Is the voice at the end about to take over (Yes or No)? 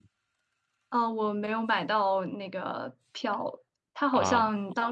No